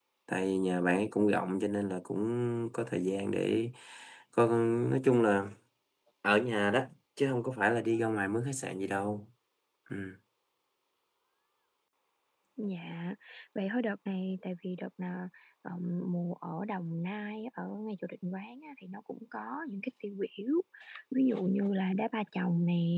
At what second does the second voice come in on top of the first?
none

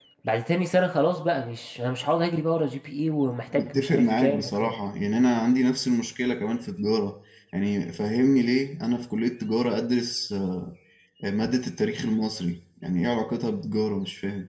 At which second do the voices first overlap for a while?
3.5 s

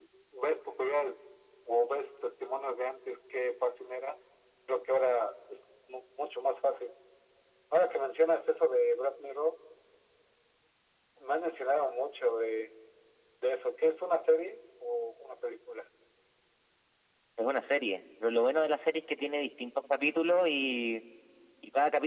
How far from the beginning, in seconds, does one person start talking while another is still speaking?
none

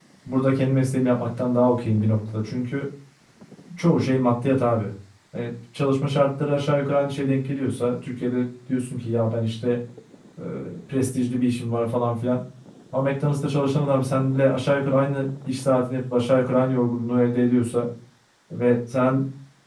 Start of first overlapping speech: none

